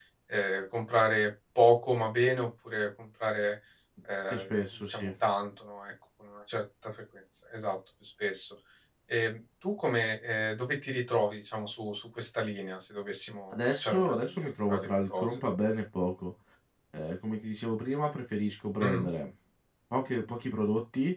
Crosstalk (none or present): present